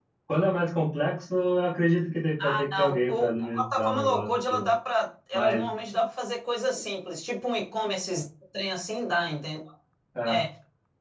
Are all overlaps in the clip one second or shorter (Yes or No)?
No